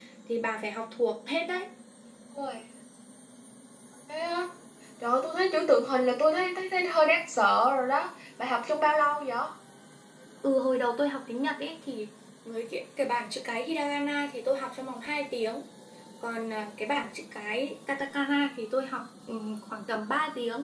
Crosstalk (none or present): none